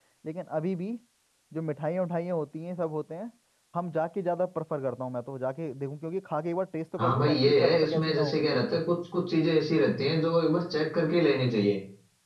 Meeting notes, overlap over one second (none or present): present